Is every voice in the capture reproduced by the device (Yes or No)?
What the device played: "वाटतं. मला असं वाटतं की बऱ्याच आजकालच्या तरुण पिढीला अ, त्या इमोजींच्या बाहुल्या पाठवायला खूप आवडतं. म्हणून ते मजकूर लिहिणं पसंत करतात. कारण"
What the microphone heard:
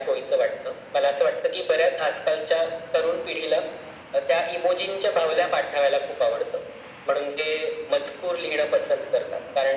Yes